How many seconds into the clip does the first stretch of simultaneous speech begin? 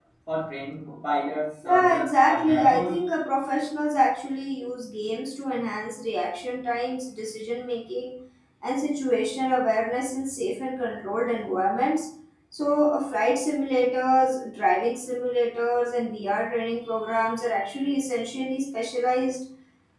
1.6 s

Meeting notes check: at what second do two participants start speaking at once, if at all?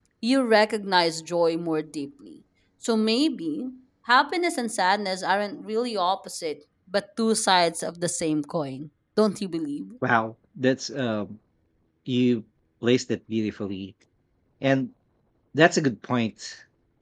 none

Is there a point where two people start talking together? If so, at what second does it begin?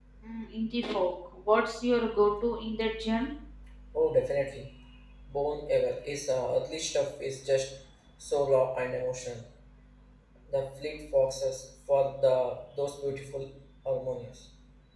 none

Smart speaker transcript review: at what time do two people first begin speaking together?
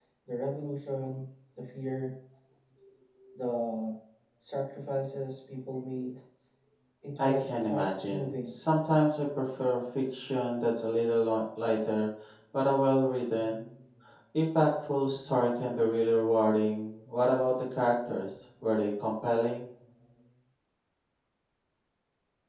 7.2 s

